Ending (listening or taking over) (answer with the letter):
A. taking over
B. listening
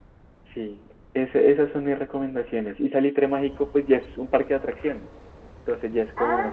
B